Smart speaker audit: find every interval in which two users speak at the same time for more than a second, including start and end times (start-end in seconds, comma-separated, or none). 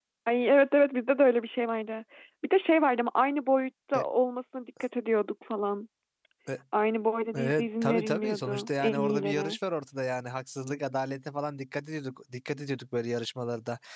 7.3-9.6